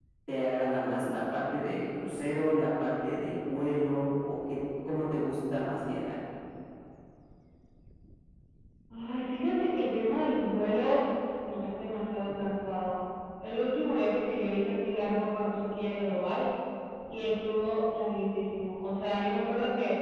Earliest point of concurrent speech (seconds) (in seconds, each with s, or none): none